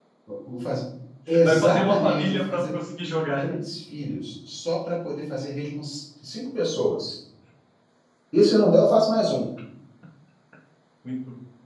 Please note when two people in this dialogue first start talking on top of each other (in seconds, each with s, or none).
1.4 s